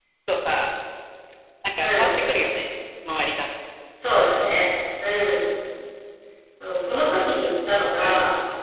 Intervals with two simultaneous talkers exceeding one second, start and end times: none

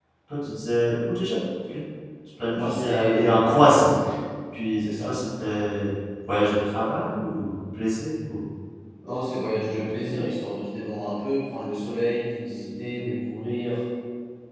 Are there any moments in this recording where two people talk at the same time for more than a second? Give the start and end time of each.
2.5-3.9

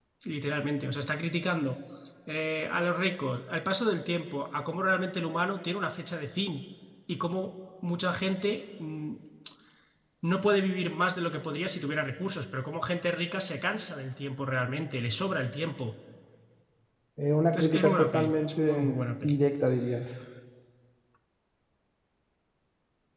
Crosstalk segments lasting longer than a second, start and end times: 17.5-18.8

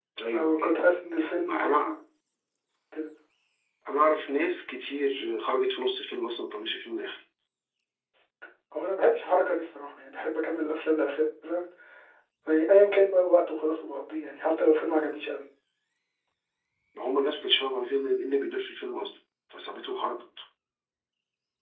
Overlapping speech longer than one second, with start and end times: none

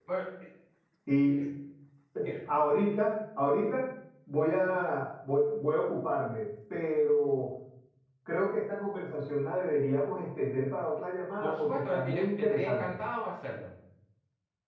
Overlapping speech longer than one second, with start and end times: 11.4-13.0

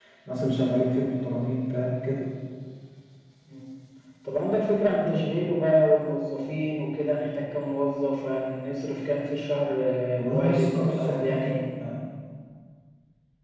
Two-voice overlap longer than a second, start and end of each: 10.1-11.6

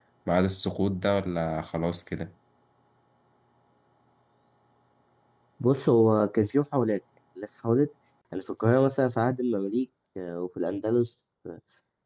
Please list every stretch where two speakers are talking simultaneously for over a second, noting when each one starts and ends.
none

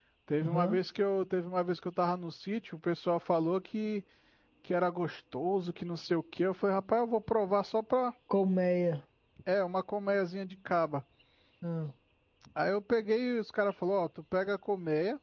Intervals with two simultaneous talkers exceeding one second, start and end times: none

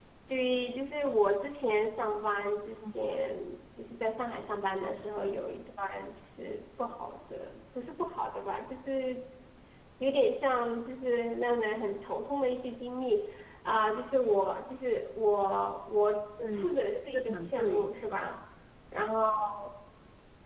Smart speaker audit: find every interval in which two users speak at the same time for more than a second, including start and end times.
16.4-17.9

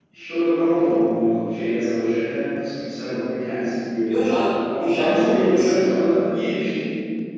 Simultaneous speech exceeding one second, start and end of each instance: 4.8-6.1

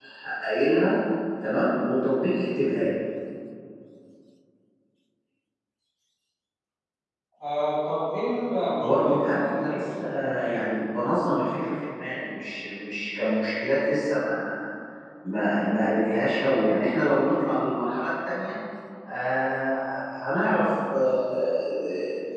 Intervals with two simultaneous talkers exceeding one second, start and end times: 8.8-10.0

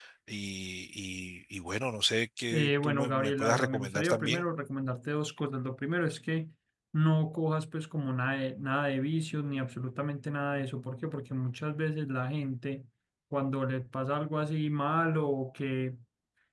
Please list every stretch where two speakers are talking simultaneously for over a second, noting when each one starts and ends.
2.5-4.4

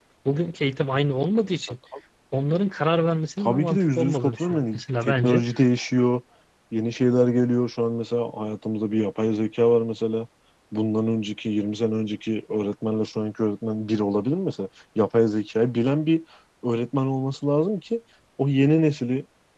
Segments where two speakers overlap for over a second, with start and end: 3.4-5.4

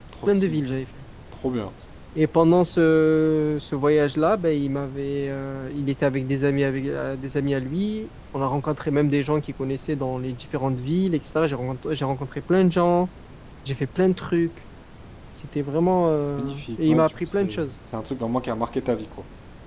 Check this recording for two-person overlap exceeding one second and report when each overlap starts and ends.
16.4-17.7

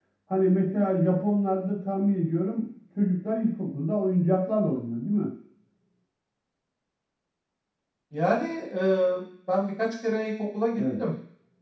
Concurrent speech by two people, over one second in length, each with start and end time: none

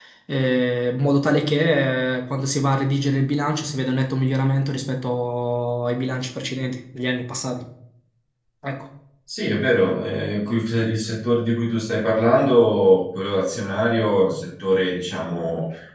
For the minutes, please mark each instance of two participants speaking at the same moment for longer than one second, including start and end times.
none

